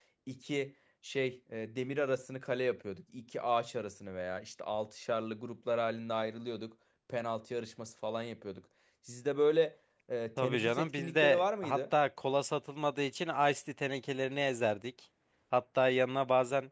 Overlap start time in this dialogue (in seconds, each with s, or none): 10.4 s